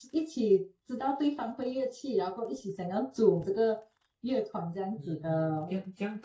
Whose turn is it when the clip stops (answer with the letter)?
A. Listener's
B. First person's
A